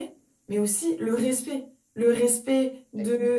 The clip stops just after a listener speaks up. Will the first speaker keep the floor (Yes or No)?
Yes